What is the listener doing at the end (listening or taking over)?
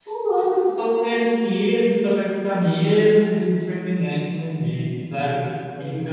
listening